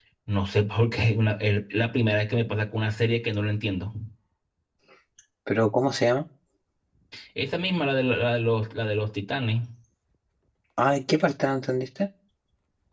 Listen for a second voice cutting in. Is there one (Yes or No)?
No